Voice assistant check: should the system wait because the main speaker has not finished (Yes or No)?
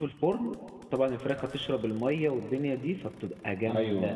Yes